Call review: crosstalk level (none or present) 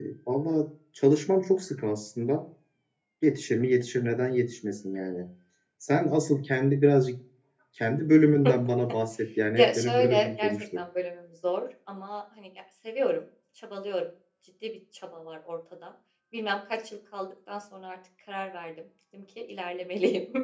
present